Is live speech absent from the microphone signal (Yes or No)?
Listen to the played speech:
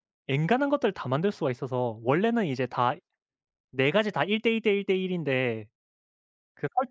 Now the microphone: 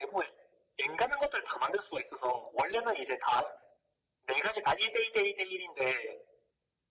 Yes